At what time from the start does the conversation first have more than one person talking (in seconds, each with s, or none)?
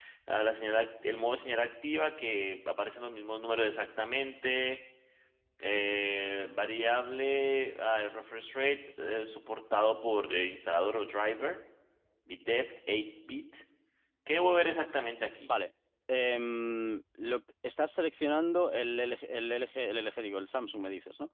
none